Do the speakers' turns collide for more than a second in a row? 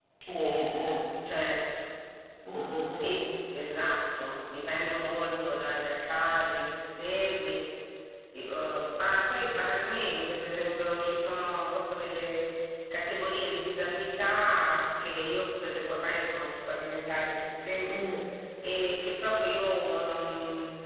No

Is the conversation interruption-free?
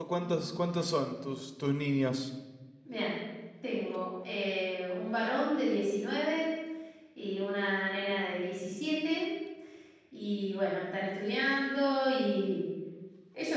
Yes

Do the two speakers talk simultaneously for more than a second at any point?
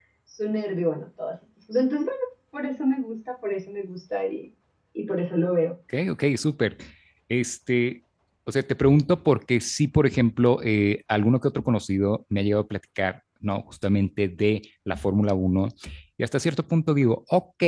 No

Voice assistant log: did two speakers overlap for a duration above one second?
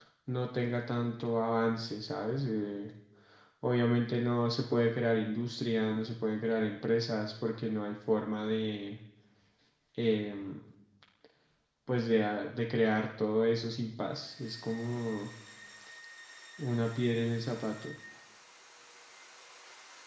No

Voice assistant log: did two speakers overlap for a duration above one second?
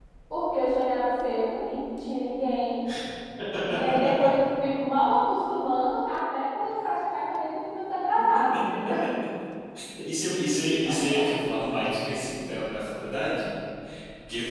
No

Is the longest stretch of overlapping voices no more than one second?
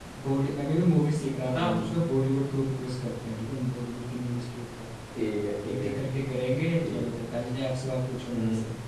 Yes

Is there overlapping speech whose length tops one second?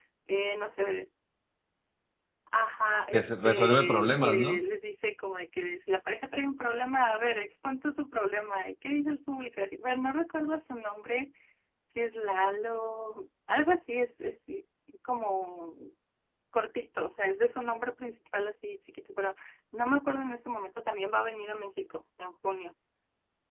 Yes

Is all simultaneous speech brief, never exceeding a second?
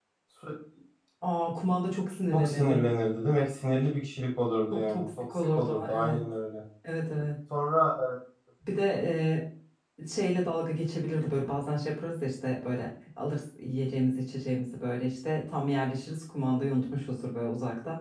No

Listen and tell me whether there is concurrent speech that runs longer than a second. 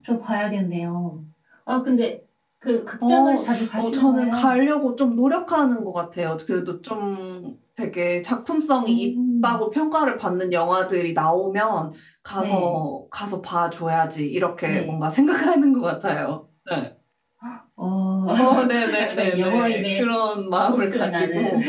Yes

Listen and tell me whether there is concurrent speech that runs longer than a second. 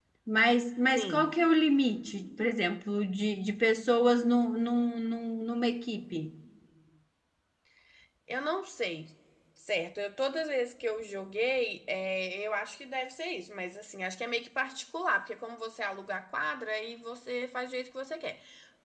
No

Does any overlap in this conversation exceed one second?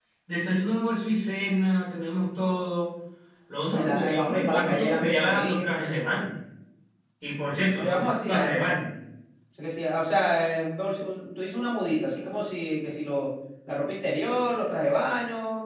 Yes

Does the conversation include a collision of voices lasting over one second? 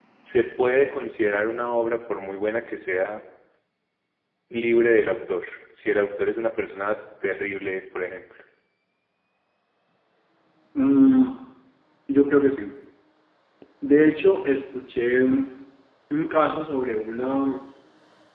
No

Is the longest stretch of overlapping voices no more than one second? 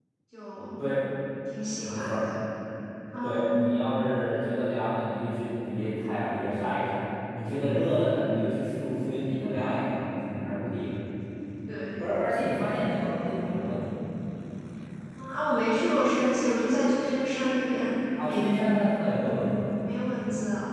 Yes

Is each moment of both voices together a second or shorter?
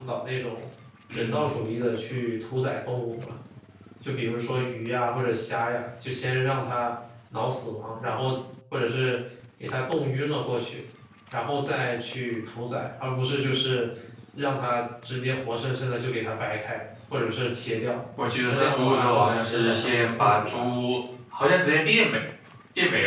No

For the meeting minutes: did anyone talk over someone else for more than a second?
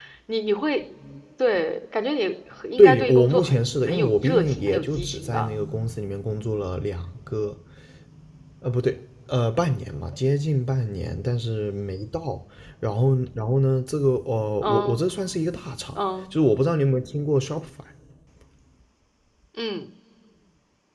Yes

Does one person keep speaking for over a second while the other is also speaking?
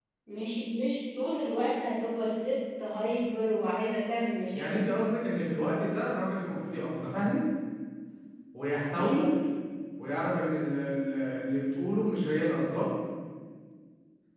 No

